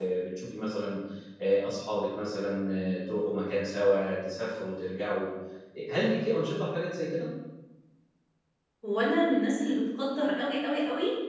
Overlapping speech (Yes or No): No